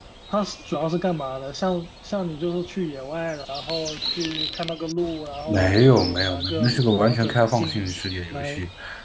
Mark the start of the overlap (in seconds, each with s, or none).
5.5 s